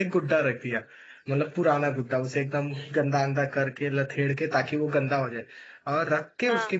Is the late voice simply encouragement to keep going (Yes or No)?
Yes